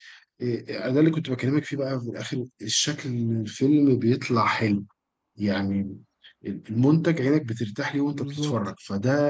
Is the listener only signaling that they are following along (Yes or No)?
Yes